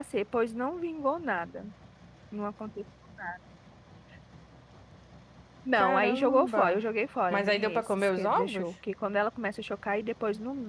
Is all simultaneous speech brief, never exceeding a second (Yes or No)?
No